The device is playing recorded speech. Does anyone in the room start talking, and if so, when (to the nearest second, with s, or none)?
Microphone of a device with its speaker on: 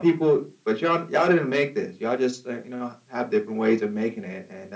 none